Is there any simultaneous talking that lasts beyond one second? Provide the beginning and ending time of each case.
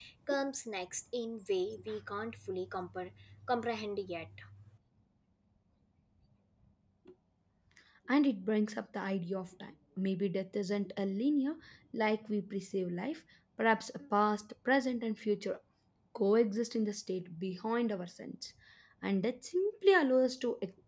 none

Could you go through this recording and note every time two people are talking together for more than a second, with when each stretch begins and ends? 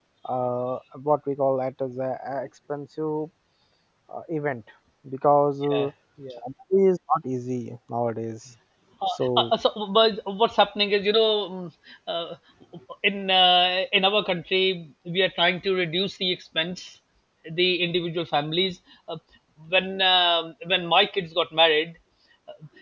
none

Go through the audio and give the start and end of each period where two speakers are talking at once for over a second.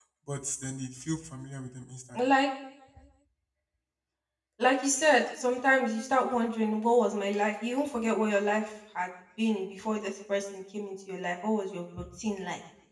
none

